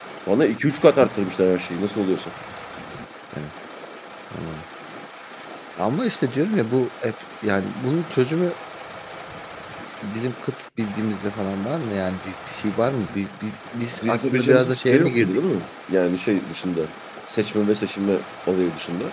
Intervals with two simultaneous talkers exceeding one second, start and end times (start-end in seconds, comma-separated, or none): 13.9-15.4